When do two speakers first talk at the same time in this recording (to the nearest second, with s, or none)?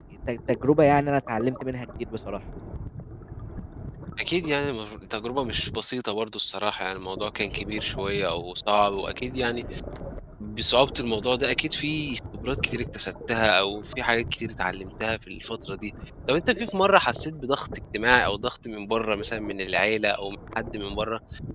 none